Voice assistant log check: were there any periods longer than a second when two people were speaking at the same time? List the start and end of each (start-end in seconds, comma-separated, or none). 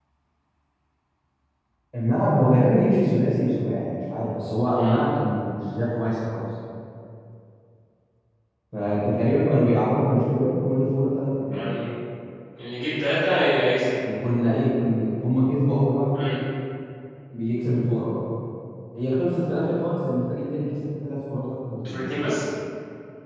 none